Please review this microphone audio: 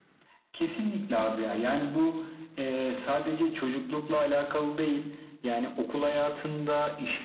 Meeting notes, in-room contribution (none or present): none